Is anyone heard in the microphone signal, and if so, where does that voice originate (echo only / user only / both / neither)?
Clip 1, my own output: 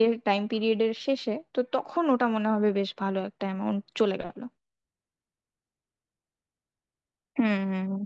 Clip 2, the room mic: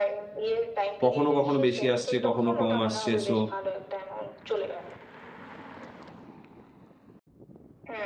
both